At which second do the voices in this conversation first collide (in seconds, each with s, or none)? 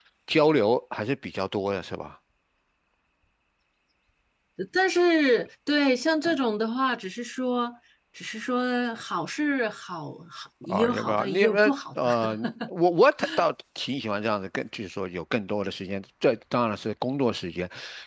10.6 s